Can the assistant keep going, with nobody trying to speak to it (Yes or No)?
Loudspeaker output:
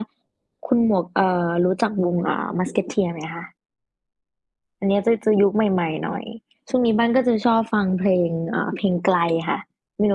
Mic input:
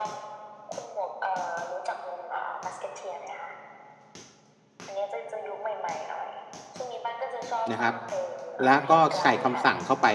No